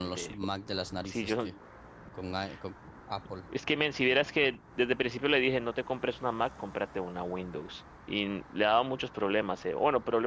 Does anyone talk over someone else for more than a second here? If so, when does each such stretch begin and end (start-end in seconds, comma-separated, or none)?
none